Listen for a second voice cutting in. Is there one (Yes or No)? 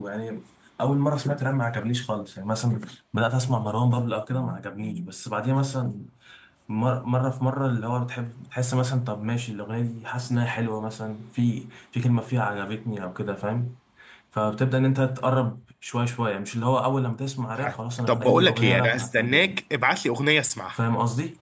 Yes